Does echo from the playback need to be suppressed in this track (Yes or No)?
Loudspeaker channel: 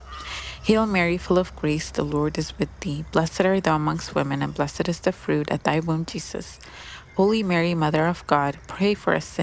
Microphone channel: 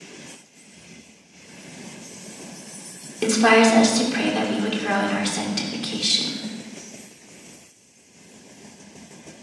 No